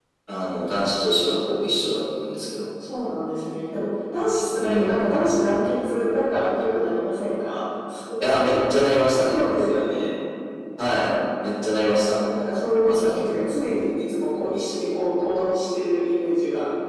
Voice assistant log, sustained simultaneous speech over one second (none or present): none